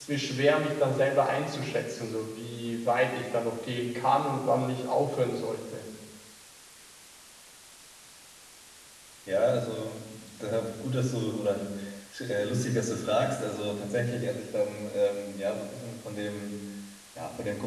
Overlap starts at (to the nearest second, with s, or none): none